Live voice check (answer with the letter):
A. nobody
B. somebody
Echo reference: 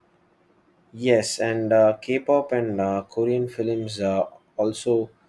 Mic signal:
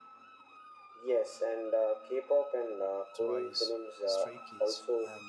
B